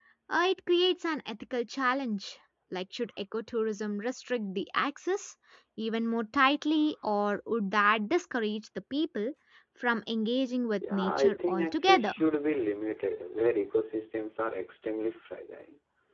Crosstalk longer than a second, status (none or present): present